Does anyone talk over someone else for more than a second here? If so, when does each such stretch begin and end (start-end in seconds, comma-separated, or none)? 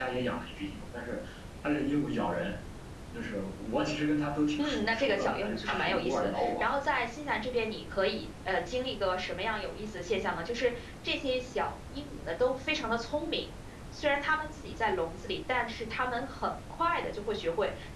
4.6-6.6